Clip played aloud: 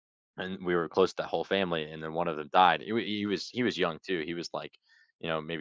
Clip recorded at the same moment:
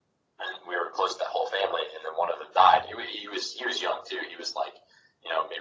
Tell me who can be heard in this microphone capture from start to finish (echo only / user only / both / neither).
echo only